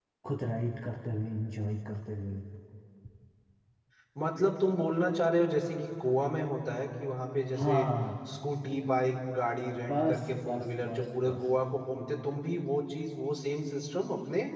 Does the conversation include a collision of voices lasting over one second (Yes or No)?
Yes